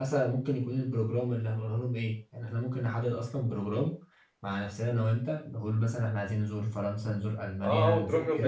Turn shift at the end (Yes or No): Yes